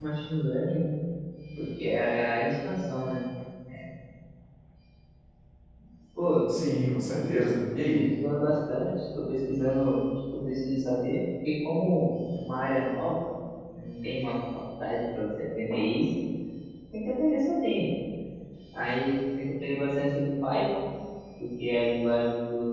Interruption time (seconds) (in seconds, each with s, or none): none